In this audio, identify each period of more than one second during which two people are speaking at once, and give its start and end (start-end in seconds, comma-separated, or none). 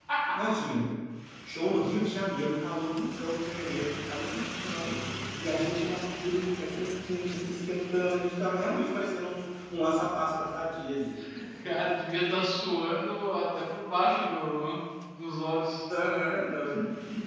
none